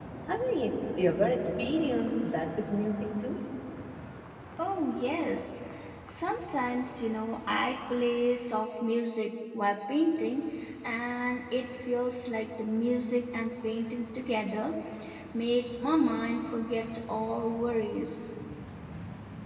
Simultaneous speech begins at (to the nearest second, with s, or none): none